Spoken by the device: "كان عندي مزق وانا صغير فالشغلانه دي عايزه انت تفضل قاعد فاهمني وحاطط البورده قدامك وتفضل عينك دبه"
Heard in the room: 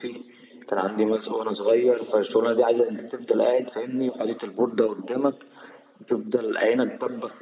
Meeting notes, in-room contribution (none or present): none